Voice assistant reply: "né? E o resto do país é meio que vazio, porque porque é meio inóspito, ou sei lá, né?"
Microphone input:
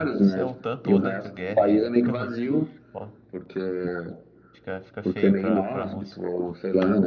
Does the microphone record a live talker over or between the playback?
Yes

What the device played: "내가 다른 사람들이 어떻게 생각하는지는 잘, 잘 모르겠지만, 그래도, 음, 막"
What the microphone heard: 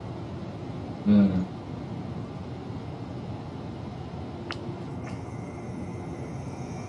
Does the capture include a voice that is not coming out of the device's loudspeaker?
Yes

